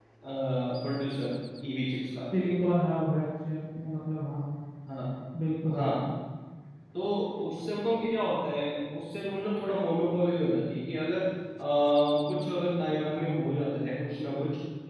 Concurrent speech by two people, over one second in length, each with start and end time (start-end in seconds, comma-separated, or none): none